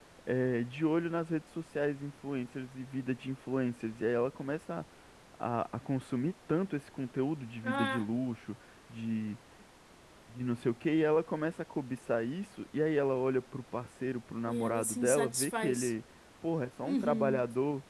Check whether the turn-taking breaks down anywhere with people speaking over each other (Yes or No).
Yes